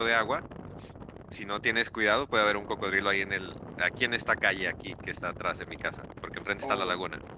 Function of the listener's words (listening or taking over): taking over